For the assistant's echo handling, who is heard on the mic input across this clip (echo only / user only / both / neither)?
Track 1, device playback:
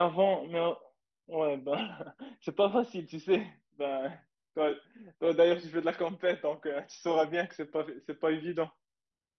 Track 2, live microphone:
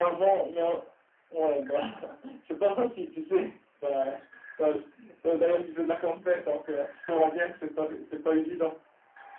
echo only